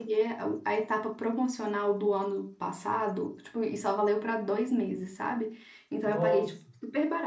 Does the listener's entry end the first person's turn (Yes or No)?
No